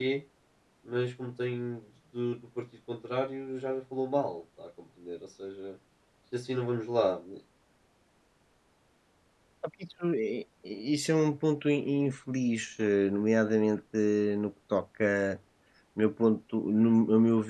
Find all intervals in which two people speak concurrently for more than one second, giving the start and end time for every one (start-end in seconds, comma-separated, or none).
none